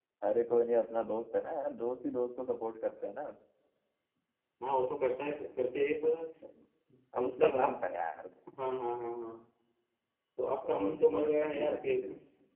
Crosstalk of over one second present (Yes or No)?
Yes